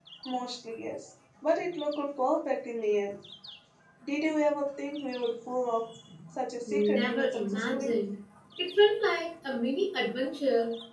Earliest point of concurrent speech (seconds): 7 s

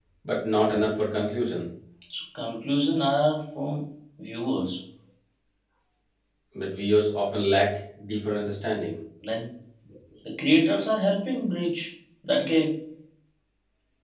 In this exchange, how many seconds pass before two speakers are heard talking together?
none

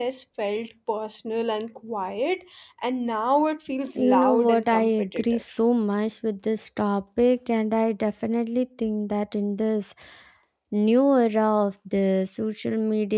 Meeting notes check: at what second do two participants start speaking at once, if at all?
4 s

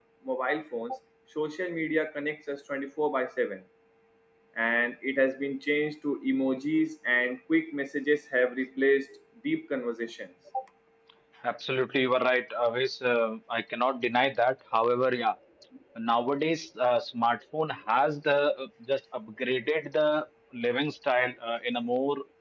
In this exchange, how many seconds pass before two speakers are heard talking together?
none

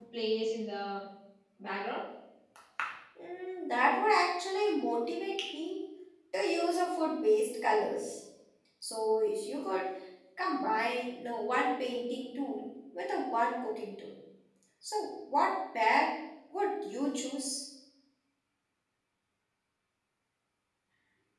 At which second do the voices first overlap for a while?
none

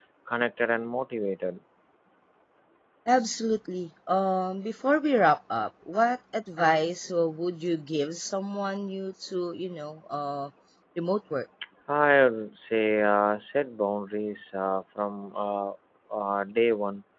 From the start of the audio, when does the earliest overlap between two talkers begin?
none

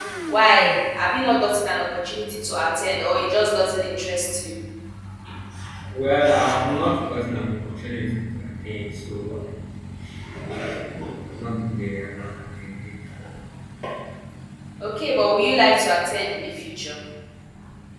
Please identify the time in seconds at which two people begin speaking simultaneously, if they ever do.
none

